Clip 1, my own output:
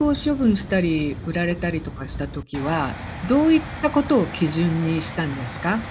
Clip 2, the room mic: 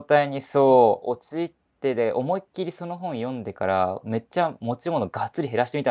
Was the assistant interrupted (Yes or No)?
Yes